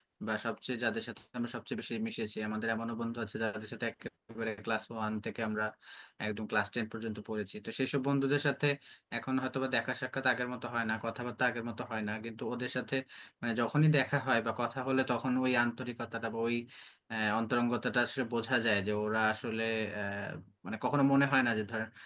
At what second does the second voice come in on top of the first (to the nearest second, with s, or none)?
none